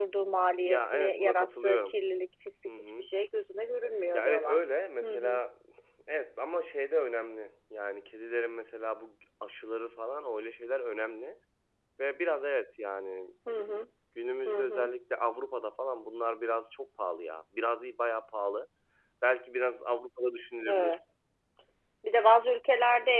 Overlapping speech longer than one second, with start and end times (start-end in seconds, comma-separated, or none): 0.7-1.9